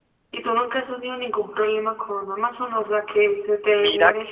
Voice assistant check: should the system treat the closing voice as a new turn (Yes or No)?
Yes